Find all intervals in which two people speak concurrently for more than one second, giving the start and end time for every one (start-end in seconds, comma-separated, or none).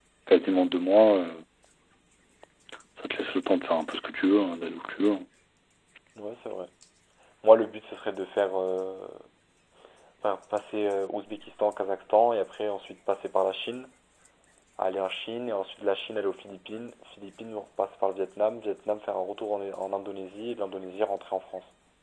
none